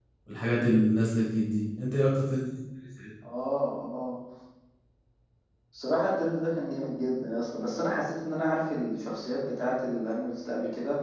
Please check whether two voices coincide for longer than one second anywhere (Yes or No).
No